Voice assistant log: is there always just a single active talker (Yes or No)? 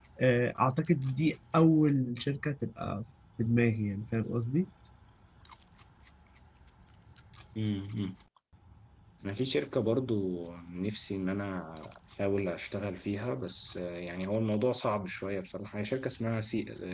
Yes